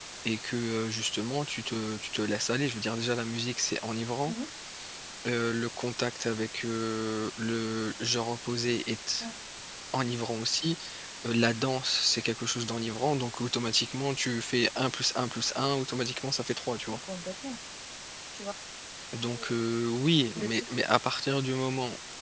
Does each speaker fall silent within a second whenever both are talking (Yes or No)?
Yes